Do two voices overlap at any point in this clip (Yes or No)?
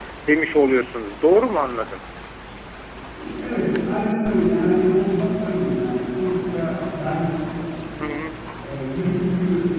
No